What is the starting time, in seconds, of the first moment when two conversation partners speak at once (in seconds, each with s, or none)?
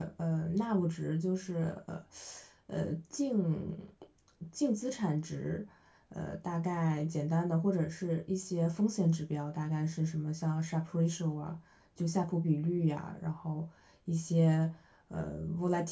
none